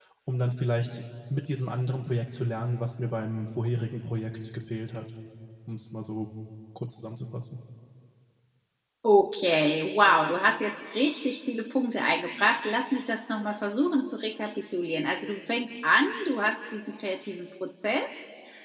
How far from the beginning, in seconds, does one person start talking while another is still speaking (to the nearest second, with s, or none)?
none